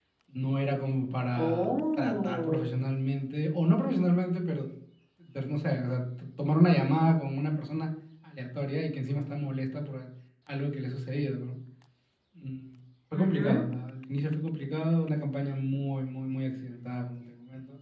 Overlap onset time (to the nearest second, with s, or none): 1 s